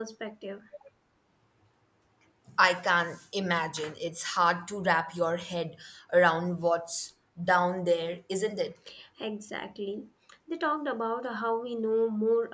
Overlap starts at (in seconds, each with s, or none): none